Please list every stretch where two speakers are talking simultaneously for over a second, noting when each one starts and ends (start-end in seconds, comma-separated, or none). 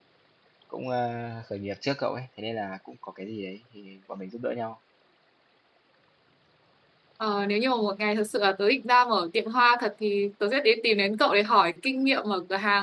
none